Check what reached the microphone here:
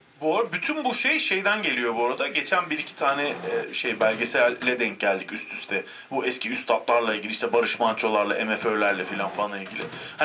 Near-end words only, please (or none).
none